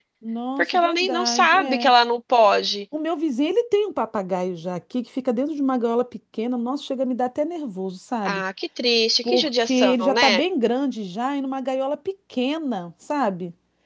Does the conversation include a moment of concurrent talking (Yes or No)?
Yes